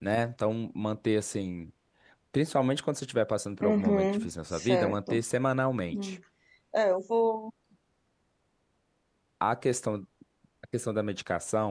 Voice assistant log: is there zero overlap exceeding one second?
No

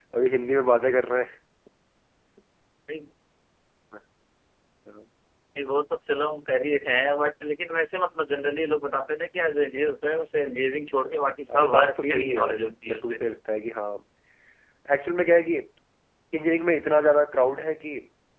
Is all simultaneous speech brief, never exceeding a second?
No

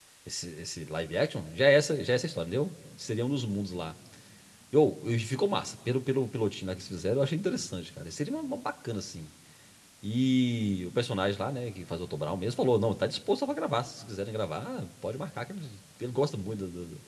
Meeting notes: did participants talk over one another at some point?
No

